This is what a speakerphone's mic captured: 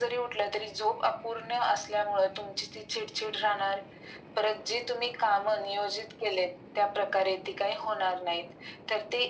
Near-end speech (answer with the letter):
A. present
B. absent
B